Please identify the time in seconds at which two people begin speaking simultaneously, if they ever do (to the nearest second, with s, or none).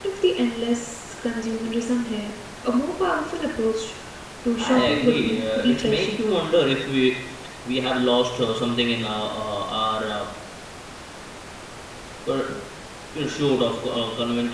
5 s